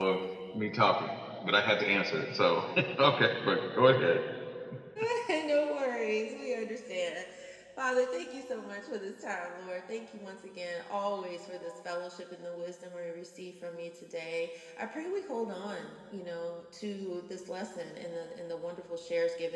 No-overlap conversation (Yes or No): Yes